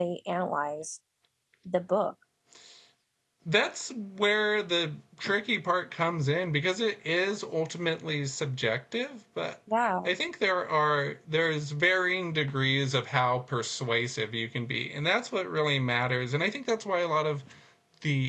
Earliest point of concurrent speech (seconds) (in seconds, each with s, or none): none